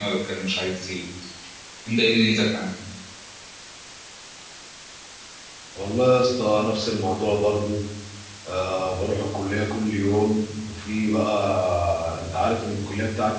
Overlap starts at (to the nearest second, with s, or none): none